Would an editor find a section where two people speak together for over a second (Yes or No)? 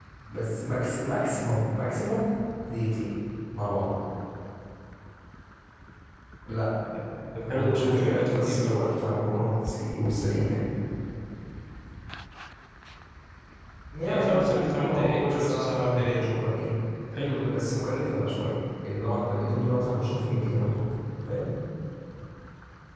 Yes